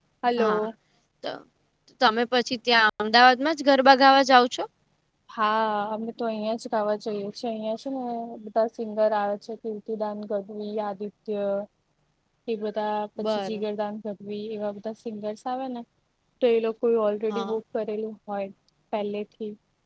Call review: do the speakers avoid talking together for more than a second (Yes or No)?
Yes